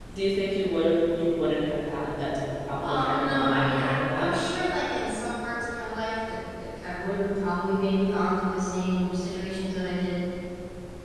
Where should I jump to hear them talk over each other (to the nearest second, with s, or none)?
3 s